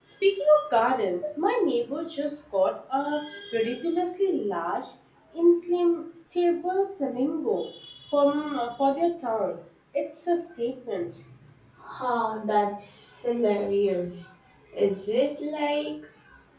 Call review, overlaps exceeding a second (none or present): none